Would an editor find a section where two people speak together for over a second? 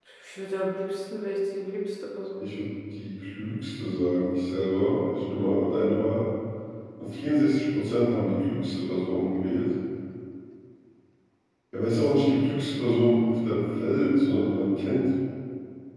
No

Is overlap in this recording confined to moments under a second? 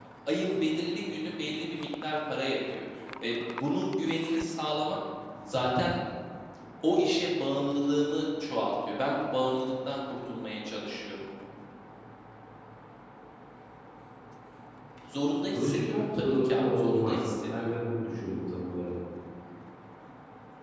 No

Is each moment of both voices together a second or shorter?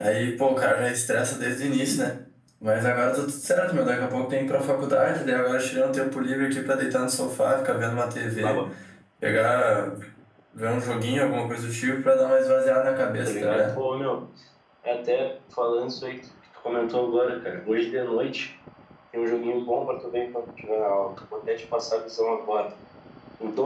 Yes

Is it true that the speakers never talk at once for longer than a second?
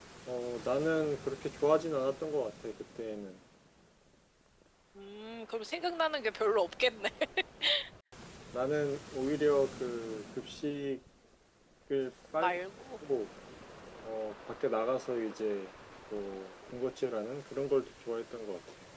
Yes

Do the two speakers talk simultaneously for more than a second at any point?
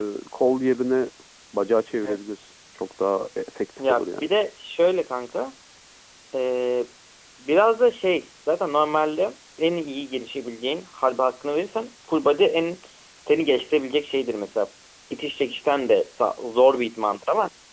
No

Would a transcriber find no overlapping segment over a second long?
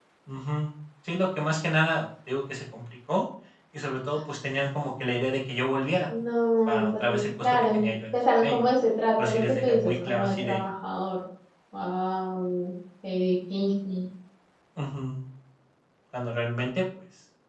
No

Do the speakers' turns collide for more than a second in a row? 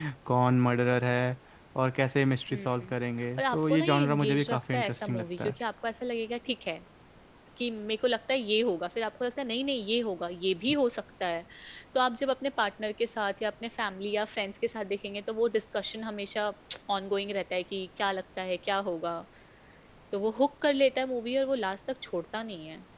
Yes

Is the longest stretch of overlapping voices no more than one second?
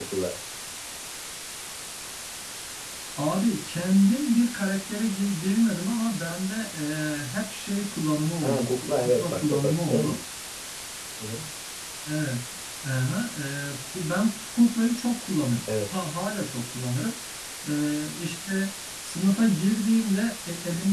No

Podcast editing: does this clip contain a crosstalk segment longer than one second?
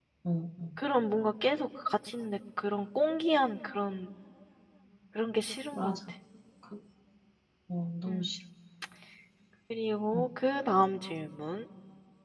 No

